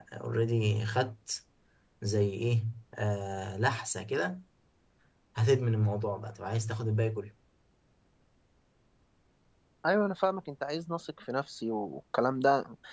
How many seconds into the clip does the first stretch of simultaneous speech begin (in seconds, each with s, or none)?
none